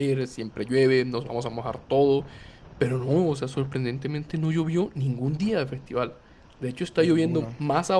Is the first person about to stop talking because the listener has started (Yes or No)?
No